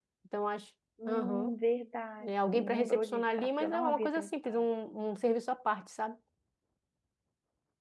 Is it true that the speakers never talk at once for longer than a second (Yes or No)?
No